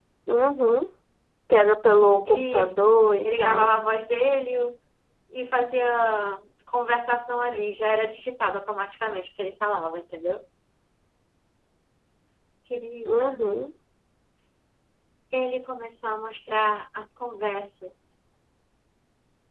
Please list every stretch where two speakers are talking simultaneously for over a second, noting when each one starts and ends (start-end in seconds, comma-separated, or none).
2.3-3.7